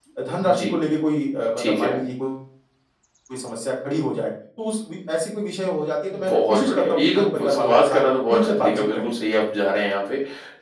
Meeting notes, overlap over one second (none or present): present